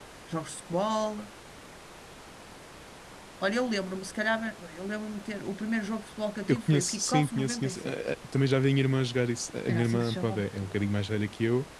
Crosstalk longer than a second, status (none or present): present